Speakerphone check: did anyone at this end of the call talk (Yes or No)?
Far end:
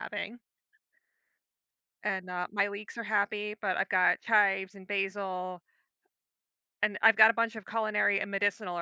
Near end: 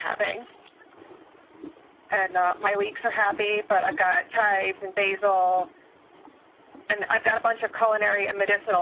No